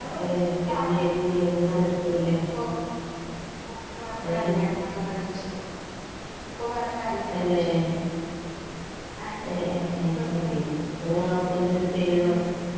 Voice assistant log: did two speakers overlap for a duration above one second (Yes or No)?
No